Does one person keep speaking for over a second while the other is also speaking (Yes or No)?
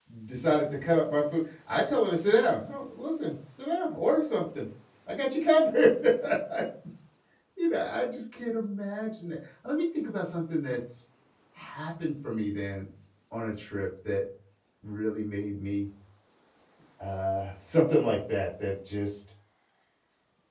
No